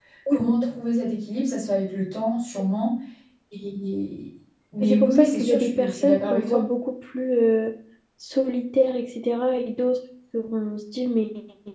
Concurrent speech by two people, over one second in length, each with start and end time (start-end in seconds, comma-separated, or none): 4.8-6.7